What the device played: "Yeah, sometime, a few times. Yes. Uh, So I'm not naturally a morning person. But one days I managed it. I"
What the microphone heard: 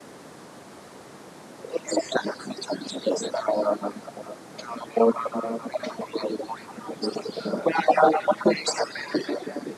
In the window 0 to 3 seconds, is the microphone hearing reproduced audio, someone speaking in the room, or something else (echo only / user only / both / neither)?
echo only